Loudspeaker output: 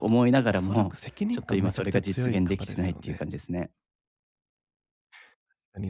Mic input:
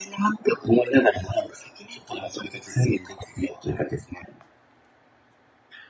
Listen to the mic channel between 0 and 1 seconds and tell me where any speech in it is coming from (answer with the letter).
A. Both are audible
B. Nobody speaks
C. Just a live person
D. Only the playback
D